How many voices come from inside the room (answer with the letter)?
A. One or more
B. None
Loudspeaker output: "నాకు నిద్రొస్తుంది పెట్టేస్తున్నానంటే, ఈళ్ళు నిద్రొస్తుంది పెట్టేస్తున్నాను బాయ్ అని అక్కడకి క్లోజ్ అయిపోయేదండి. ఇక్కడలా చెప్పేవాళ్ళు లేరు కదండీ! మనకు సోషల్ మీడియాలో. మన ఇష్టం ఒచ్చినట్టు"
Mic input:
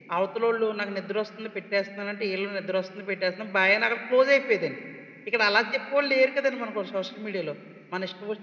B